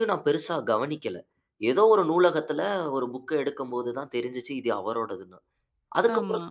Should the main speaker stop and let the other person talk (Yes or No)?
No